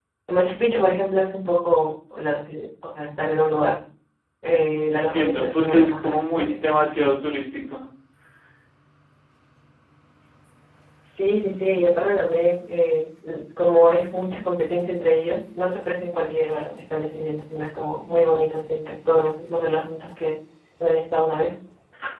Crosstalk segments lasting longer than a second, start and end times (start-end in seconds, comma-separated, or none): 4.9-6.6